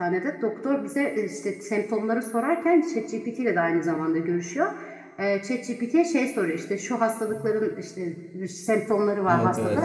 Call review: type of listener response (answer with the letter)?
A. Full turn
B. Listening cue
B